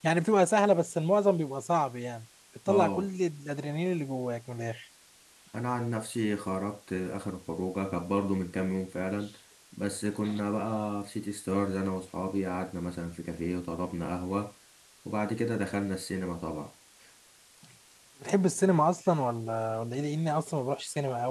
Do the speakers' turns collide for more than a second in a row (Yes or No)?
No